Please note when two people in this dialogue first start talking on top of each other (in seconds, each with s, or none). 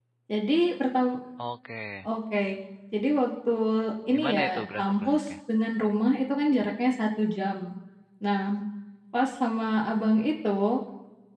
4.1 s